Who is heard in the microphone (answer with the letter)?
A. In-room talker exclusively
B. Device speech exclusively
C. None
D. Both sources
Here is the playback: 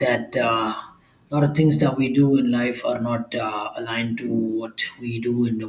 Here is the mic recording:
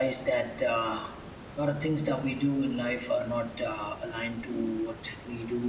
B